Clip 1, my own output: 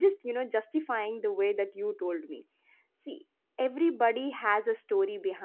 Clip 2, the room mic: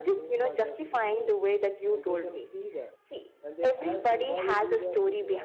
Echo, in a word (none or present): present